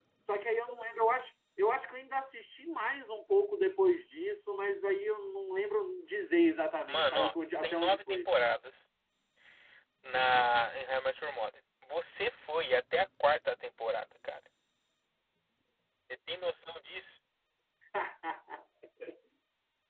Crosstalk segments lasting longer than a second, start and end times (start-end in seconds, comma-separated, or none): 6.9-8.3